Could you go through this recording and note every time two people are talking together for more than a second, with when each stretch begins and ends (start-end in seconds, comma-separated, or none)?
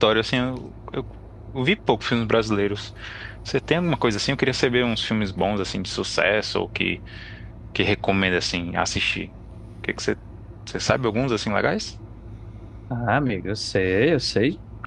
none